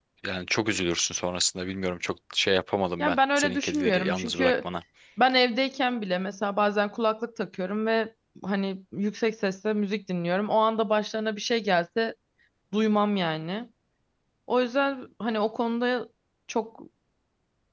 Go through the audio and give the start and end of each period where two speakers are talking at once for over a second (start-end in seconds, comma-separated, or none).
3.0-4.5